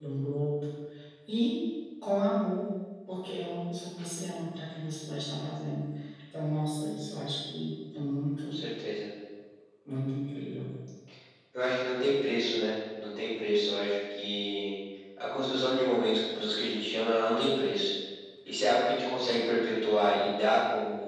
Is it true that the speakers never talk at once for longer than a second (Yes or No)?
Yes